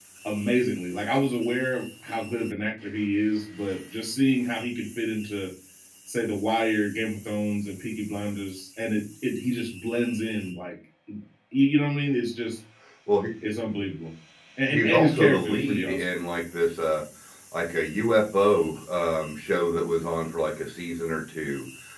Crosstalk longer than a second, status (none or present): present